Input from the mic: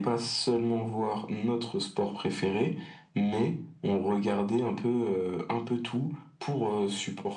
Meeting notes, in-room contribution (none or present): none